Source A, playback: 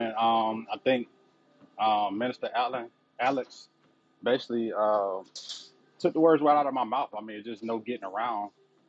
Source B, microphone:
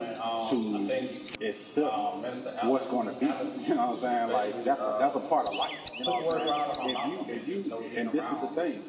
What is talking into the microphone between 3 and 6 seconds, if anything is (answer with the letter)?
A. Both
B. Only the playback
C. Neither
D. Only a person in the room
A